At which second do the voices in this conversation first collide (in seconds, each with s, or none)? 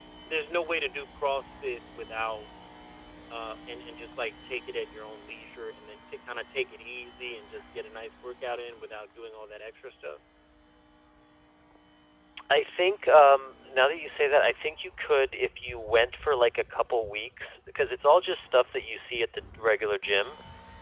none